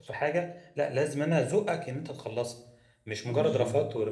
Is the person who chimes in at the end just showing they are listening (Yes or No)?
Yes